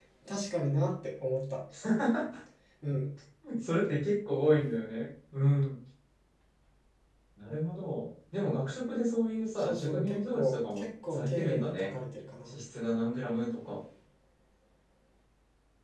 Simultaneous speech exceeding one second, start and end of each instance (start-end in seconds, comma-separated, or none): 9.6-11.9